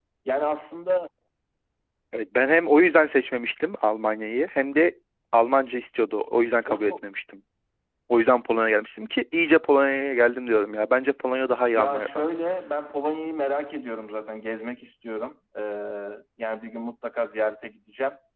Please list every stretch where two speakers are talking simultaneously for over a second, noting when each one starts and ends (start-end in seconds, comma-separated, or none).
none